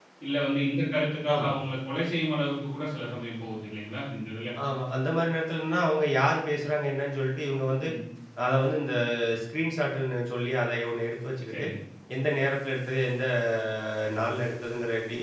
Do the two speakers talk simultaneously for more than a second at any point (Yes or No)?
No